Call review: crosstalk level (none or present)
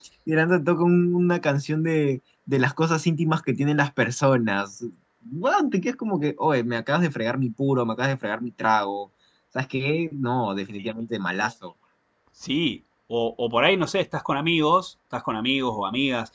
none